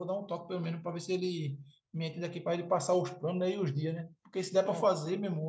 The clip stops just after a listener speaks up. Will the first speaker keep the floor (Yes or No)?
Yes